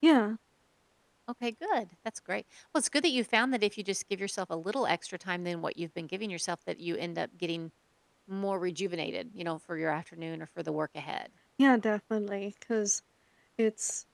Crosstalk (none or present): none